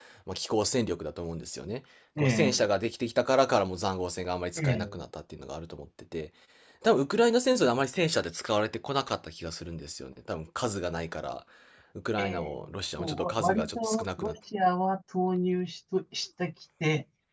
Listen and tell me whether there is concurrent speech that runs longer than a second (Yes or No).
Yes